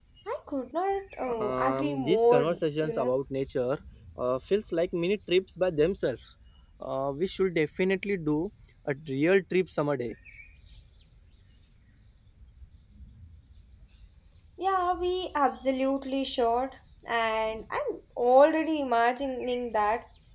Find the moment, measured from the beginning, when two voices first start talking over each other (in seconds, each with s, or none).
1.3 s